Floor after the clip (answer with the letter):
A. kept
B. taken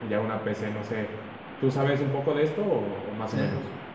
B